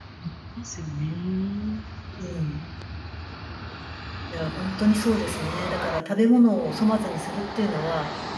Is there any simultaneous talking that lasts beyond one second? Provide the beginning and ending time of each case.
none

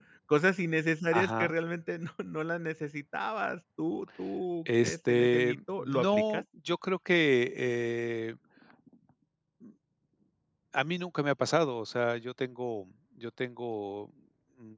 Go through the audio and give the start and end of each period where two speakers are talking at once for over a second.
4.8-6.4

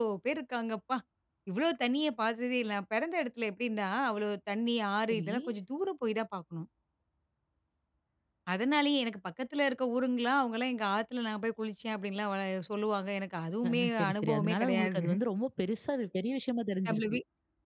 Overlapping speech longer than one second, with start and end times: 13.7-15.1

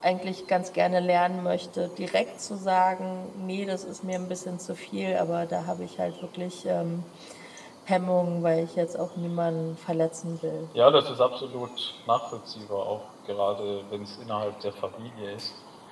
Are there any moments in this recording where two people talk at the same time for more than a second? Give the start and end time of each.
none

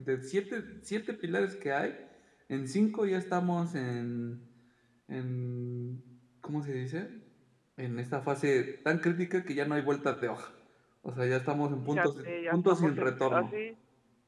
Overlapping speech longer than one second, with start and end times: 11.8-13.5

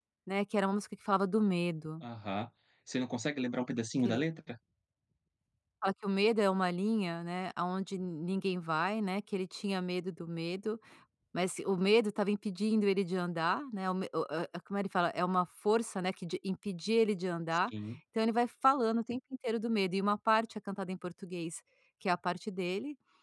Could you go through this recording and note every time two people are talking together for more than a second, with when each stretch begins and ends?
none

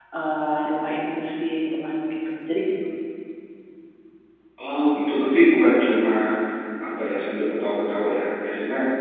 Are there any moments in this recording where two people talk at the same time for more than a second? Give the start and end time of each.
none

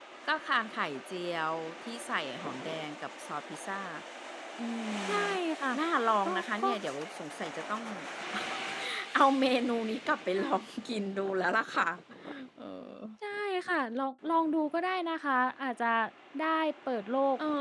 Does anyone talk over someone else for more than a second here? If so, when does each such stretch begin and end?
none

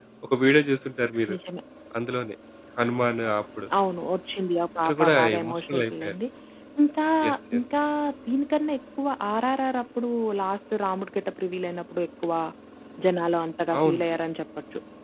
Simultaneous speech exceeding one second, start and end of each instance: 4.8-6.1

